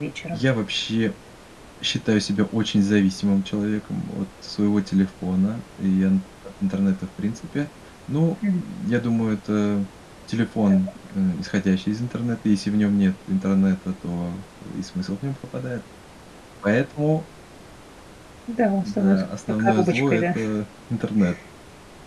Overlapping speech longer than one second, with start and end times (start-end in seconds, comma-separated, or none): 18.8-20.4